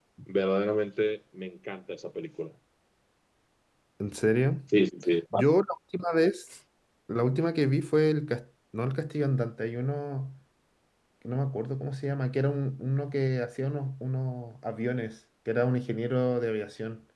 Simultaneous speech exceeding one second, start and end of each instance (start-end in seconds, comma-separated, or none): none